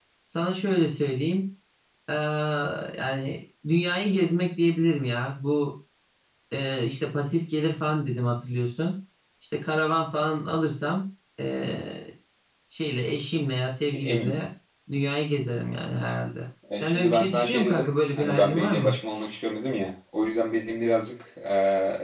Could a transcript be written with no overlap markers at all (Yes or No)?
No